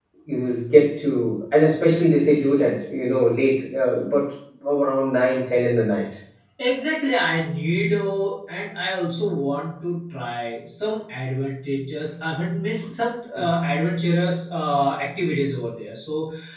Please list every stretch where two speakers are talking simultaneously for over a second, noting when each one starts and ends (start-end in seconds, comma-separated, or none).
none